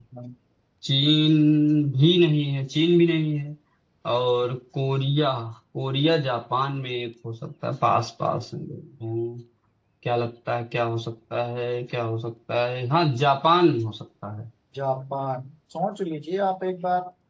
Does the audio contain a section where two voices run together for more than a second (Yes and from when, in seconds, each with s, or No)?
No